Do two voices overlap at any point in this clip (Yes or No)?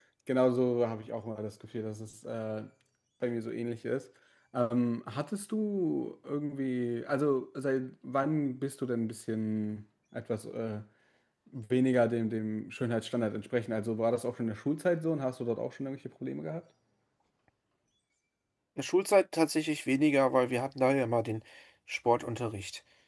No